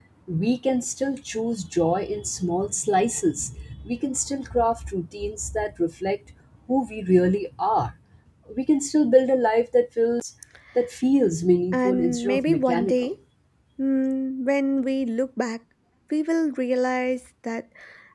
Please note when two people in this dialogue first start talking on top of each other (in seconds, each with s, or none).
11.7 s